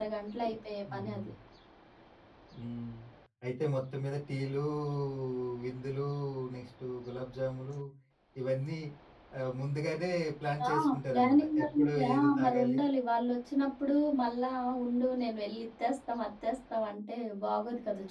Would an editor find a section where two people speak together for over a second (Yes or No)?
Yes